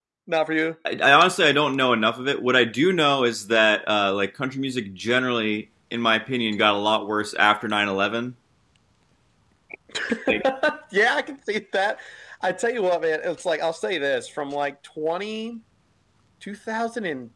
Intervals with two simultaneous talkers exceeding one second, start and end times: none

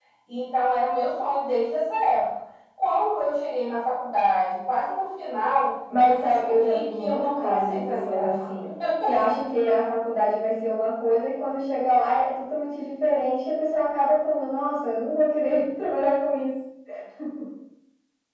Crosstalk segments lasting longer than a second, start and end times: 6.0-8.5

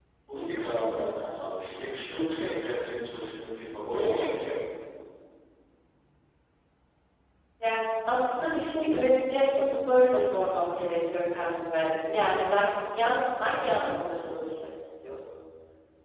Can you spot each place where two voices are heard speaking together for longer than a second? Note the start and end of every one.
none

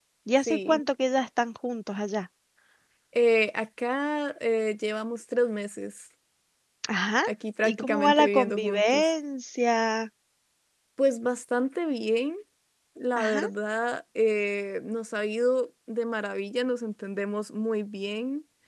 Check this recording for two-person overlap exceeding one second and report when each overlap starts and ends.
7.6-9.0

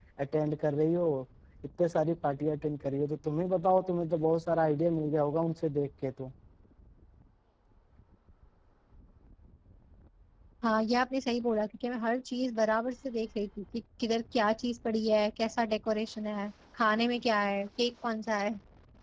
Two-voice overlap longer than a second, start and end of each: none

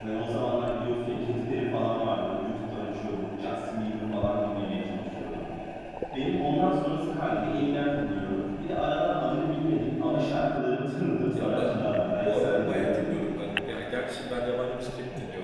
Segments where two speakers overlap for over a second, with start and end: 11.3-13.1

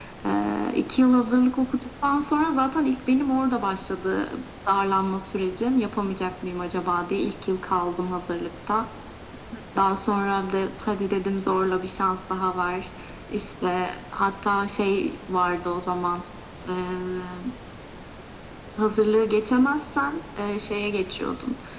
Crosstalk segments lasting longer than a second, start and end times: none

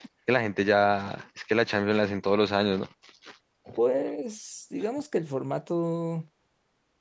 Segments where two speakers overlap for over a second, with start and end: none

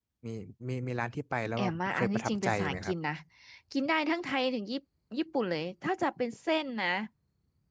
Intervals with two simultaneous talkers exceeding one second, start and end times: 1.6-2.9

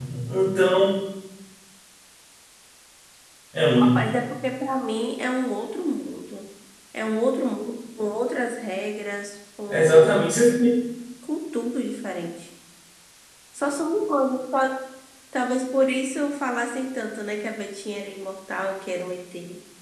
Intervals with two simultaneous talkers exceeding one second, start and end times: none

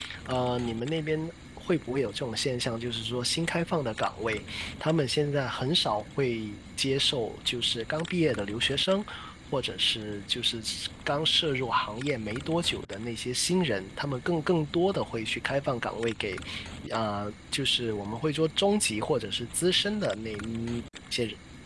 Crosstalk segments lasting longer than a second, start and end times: none

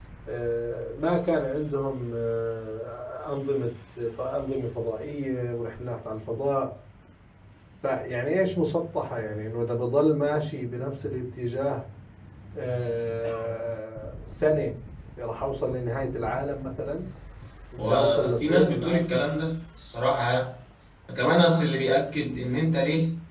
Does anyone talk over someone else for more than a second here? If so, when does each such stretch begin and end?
17.8-19.2

